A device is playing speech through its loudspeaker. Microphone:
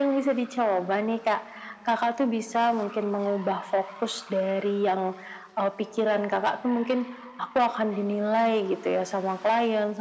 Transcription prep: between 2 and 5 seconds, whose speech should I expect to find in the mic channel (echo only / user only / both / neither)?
echo only